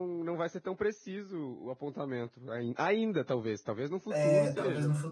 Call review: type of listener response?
taking over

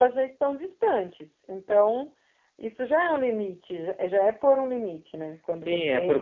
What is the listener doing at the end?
taking over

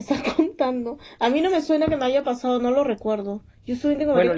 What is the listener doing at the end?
taking over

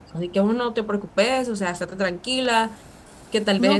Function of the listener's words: taking over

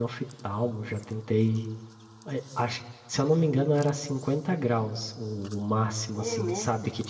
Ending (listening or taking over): listening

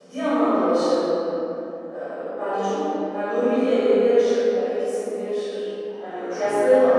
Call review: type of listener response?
taking over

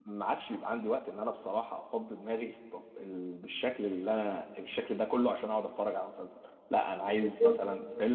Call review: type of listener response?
listening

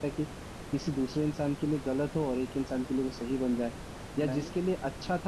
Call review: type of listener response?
listening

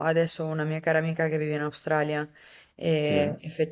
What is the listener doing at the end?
listening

